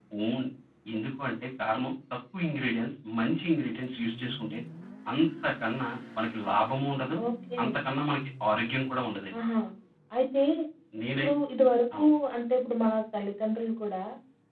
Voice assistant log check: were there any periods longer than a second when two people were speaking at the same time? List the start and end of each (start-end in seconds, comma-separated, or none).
none